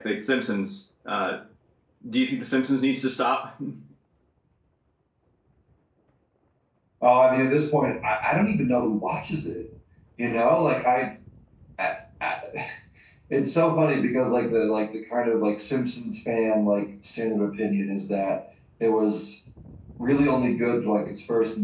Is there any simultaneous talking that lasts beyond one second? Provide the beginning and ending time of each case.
none

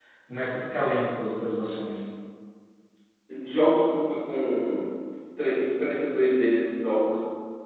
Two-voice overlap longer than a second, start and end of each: none

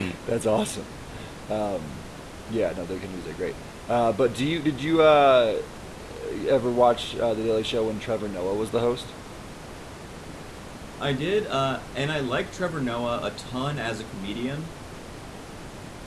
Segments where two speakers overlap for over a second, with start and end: none

